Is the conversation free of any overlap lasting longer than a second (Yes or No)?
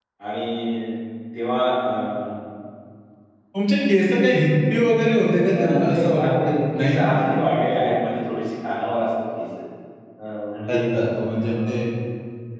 No